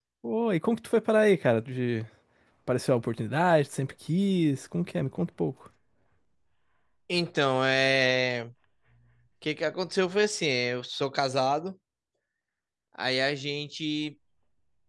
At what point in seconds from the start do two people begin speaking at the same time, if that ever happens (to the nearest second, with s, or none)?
none